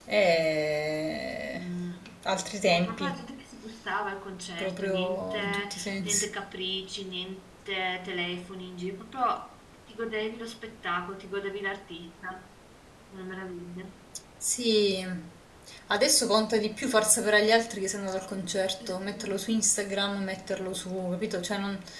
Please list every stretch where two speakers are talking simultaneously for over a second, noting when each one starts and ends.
4.6-6.3

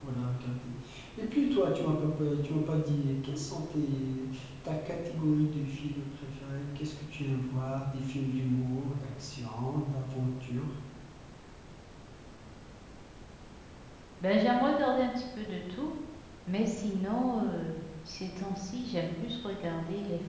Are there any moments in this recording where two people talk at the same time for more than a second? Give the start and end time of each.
none

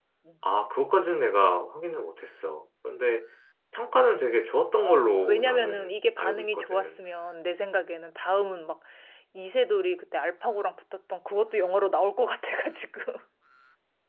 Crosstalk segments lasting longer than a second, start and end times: 4.8-6.9

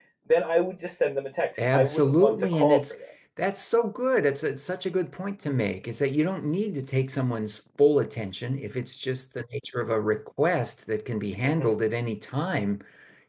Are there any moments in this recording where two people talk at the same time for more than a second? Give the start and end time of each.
1.6-2.9

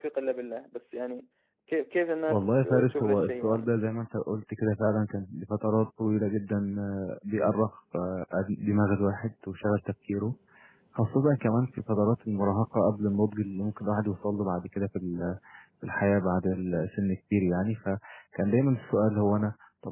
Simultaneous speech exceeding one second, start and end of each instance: 2.3-3.7

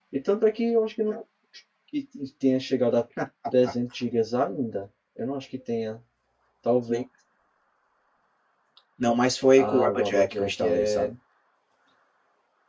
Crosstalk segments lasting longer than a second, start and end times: 9.6-11.1

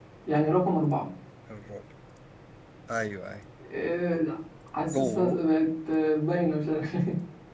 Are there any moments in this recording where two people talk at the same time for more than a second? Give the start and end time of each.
none

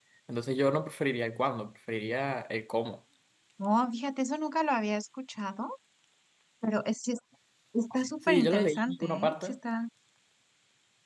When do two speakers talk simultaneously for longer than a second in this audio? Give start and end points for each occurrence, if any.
8.2-9.5

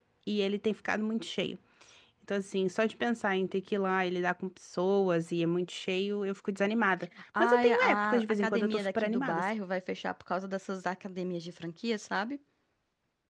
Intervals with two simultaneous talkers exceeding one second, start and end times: 7.4-9.5

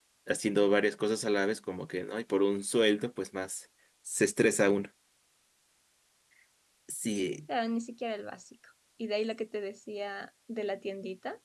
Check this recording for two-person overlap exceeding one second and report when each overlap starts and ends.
none

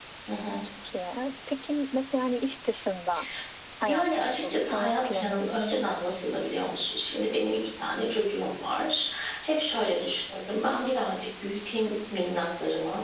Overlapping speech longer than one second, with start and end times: 3.8-5.8

